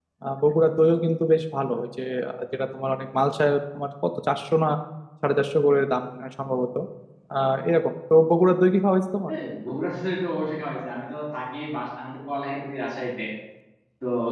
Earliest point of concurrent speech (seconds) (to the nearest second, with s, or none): none